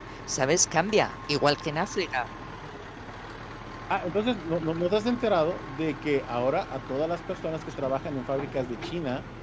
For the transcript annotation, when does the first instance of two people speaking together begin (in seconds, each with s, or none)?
none